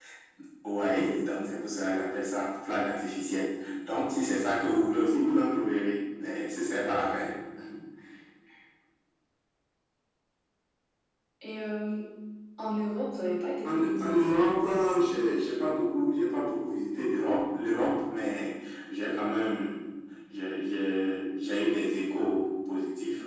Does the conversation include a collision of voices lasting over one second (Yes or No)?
Yes